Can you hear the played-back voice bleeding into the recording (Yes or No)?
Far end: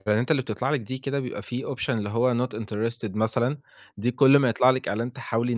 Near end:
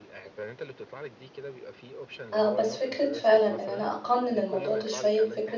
Yes